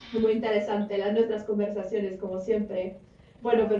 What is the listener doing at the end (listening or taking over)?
listening